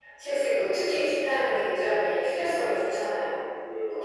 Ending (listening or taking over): taking over